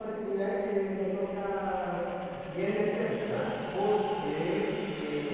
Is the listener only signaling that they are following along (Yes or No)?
Yes